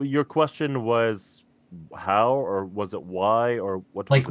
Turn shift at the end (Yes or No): Yes